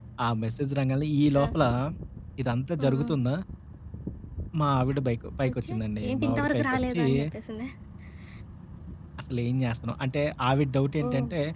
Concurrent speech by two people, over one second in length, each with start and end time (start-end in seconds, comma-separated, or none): 5.5-7.0